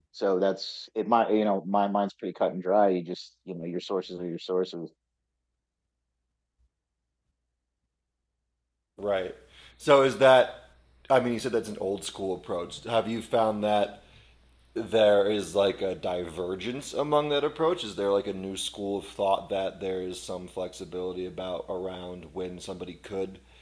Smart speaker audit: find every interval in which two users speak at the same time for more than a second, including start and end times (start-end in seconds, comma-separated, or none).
none